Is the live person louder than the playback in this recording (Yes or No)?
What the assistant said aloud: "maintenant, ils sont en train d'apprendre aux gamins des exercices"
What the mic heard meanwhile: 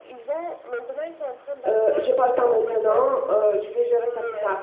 Yes